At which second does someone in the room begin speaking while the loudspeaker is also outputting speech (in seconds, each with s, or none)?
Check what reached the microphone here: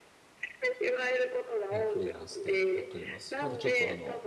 1.7 s